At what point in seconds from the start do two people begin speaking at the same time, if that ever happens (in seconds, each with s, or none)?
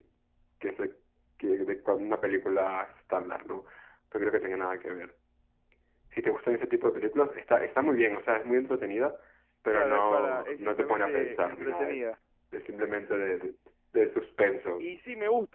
9.7 s